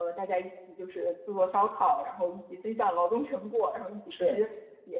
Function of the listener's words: listening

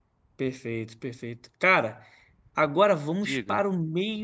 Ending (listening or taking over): listening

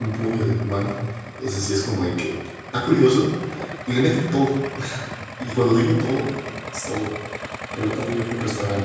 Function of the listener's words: listening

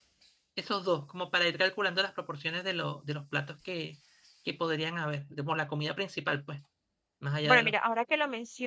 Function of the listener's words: taking over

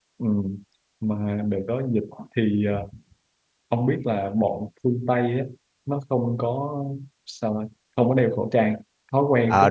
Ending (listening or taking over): taking over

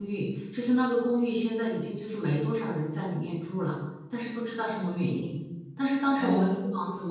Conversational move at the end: listening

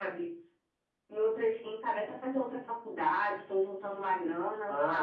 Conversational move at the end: taking over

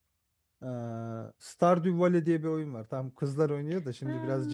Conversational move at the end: listening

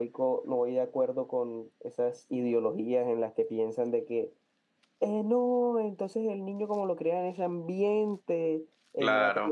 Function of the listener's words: listening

